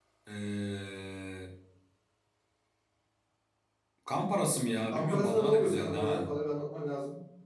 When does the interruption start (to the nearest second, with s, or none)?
5 s